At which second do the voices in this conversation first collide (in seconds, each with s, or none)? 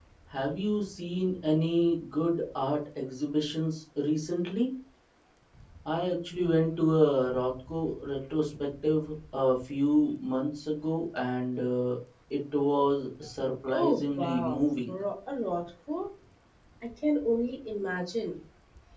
13.7 s